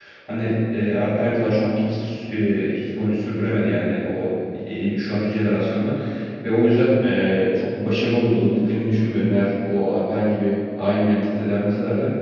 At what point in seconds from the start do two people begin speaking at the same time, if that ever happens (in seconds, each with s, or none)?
none